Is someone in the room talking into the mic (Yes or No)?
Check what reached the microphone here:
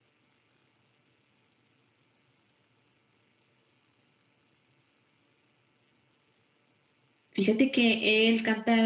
Yes